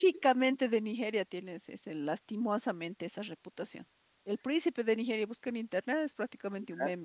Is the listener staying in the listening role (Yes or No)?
Yes